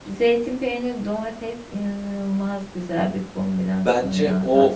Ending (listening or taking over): taking over